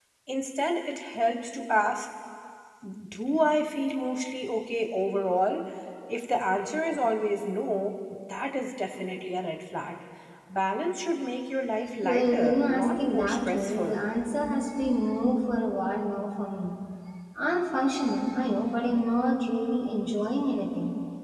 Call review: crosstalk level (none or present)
present